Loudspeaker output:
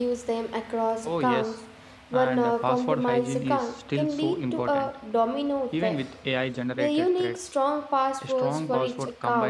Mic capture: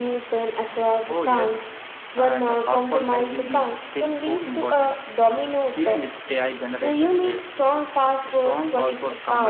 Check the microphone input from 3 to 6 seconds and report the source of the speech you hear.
echo only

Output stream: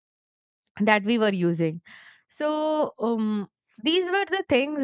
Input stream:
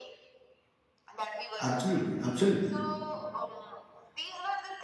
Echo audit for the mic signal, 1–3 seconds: both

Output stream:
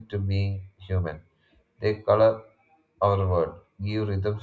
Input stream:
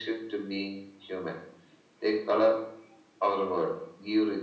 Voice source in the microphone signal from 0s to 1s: echo only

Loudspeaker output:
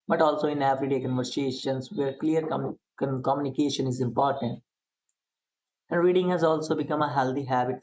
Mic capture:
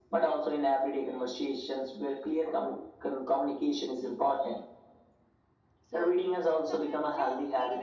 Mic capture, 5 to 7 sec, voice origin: both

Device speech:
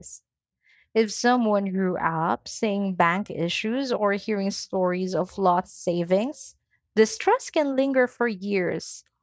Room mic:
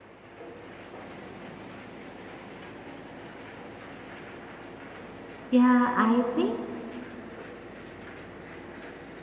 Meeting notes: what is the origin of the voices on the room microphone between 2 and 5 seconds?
neither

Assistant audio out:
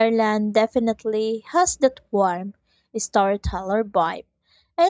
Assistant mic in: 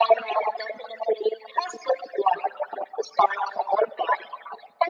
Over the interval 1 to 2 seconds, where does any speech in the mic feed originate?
echo only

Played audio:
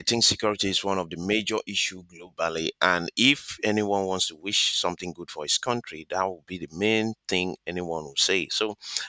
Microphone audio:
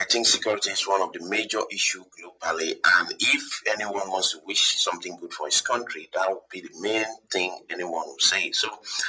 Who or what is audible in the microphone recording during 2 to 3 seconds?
echo only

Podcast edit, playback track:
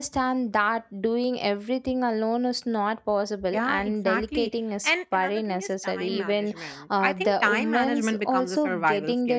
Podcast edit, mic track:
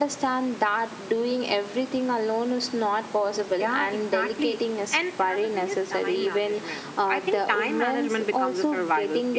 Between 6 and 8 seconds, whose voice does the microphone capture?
echo only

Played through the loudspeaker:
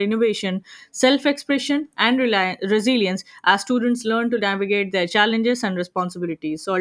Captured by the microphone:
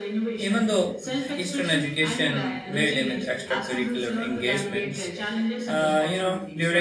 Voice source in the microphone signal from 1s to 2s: both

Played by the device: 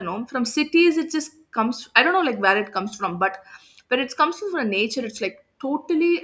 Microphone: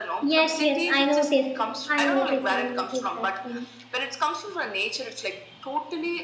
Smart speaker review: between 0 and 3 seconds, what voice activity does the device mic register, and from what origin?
both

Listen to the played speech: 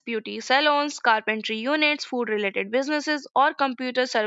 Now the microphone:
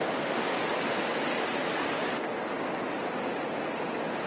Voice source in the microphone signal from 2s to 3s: neither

